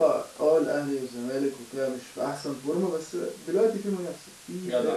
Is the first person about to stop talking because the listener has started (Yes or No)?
No